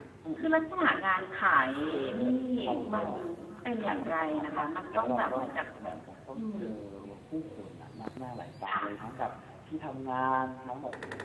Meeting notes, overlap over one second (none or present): present